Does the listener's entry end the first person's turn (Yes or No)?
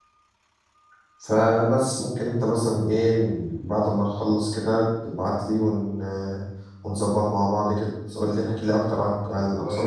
Yes